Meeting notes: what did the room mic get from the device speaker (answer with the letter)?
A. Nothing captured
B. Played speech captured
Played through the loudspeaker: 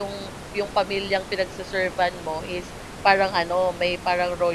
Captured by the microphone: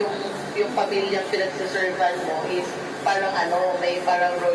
B